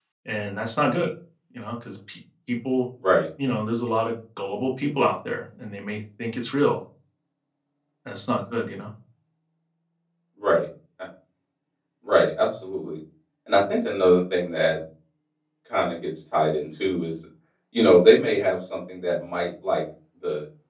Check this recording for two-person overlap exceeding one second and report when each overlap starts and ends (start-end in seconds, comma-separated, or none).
none